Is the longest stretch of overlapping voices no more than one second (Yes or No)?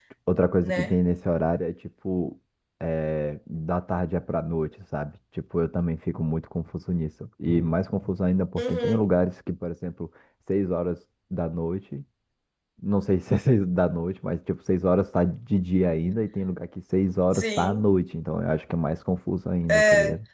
Yes